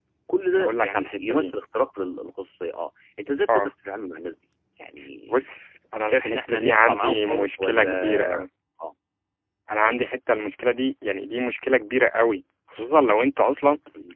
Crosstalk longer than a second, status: present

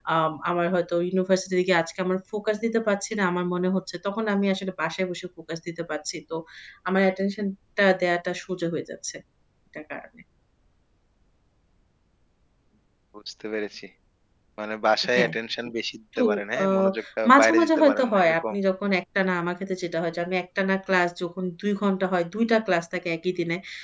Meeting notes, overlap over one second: present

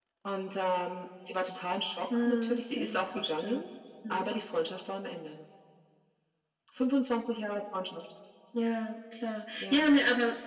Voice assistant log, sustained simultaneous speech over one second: present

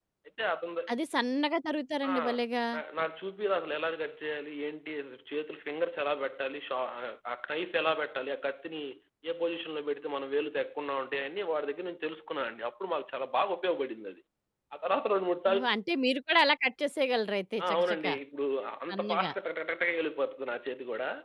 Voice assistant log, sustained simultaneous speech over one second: none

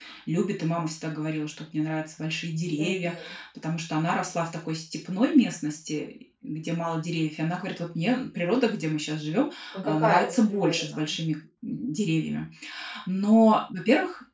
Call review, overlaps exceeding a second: present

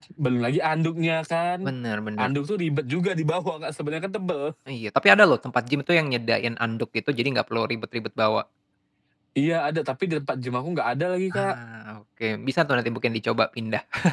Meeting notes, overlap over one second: none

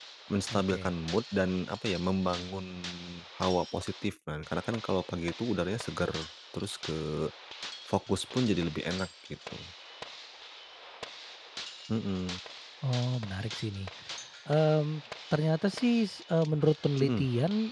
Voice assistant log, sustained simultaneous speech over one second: none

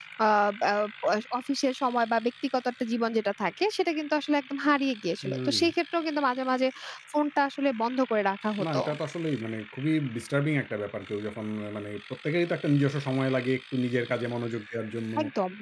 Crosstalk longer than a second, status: none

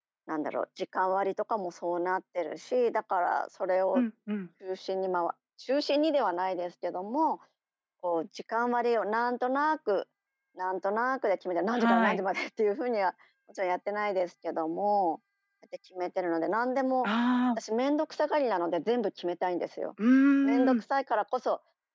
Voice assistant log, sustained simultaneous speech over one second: none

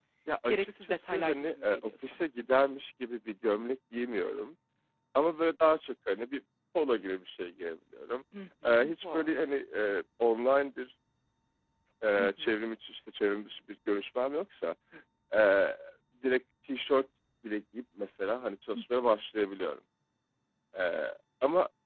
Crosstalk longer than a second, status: present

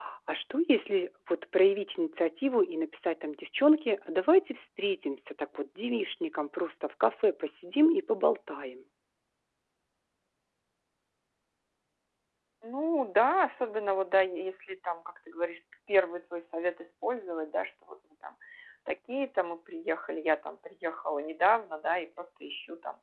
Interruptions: none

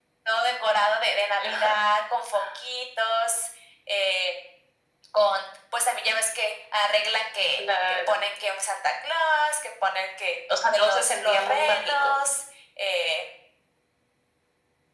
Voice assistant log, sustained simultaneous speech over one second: present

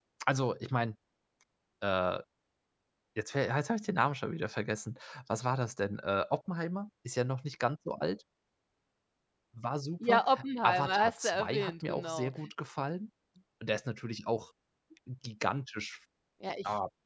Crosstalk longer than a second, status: present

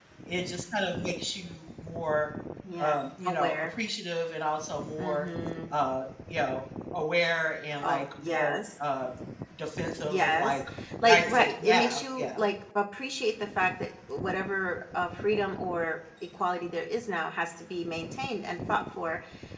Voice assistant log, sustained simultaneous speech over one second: present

